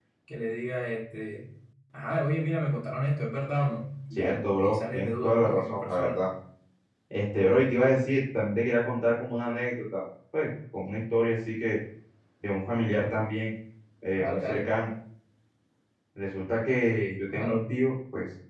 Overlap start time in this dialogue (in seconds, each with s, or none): 4.2 s